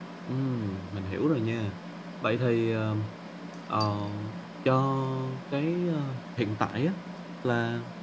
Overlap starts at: none

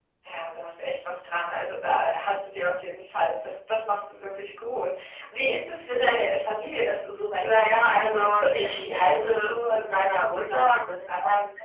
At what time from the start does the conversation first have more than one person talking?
7.4 s

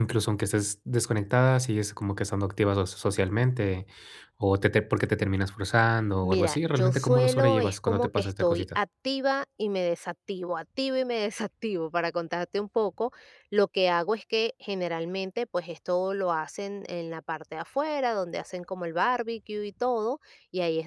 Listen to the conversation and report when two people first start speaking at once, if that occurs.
6.2 s

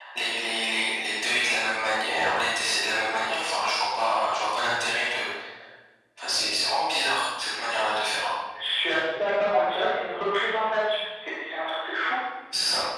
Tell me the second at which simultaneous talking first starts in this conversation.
none

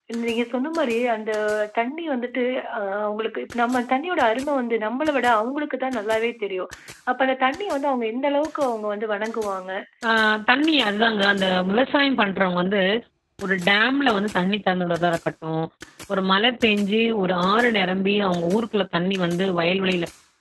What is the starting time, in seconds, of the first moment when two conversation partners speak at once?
none

